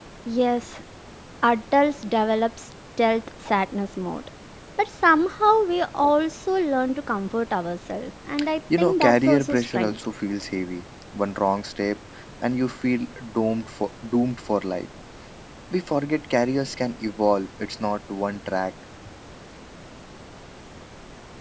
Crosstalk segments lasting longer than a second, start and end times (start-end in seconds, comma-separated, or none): 8.8-10.0